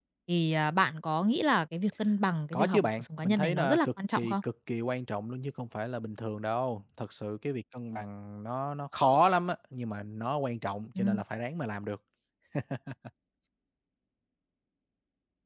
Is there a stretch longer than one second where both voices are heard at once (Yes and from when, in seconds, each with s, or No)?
Yes, from 2.5 s